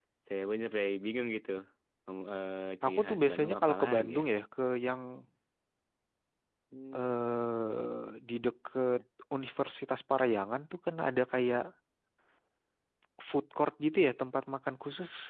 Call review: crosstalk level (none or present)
present